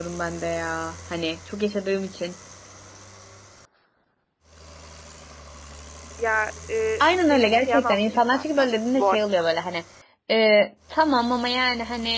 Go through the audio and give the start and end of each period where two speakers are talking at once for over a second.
7.0-9.2

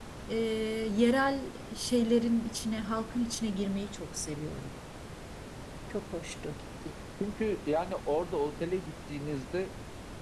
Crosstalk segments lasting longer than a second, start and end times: none

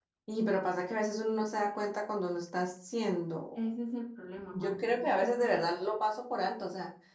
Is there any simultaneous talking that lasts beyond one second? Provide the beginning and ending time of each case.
4.5-5.7

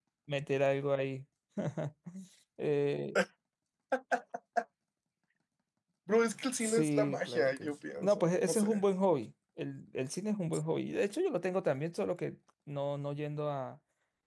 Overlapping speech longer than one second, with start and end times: 6.6-8.8

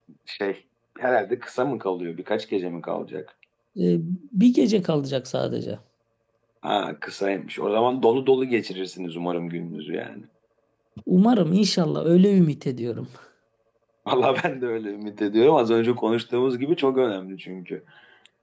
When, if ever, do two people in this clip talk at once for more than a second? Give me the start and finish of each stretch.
none

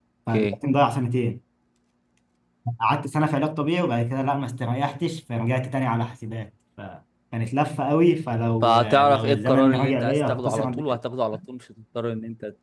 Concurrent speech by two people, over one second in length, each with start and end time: 8.6-11.0

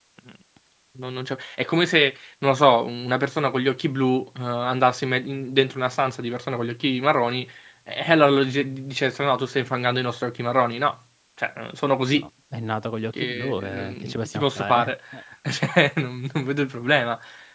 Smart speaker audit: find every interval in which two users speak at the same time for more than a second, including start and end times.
13.1-14.9

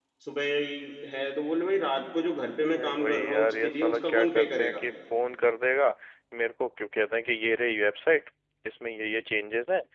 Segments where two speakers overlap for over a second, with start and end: 2.7-4.8

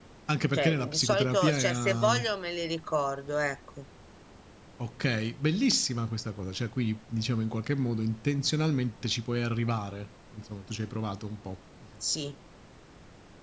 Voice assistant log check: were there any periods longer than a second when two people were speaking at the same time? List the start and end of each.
0.5-2.2

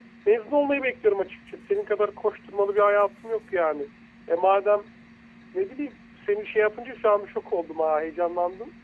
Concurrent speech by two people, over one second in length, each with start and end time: none

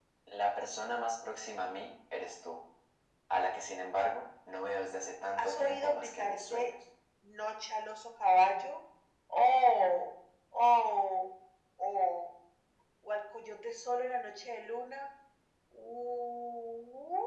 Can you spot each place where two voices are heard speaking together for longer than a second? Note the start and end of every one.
5.4-6.7

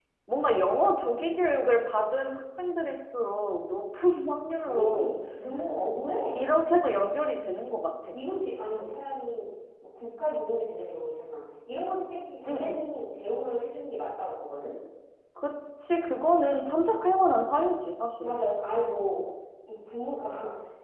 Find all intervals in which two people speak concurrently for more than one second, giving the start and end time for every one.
none

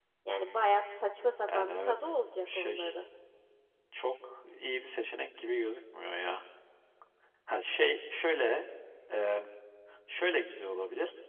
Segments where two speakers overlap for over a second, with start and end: 1.5-2.9

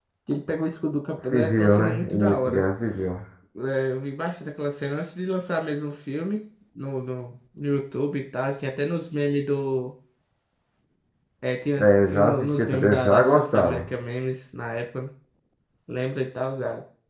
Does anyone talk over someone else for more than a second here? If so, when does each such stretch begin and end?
1.3-2.6, 11.8-13.8

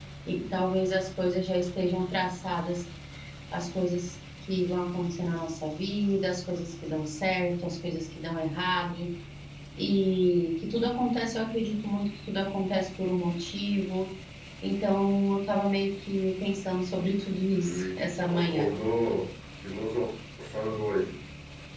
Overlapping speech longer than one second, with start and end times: 17.5-18.7

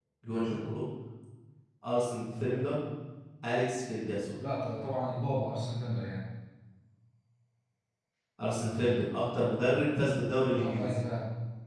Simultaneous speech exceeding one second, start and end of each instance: none

